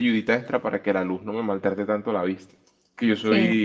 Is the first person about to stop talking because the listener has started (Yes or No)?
No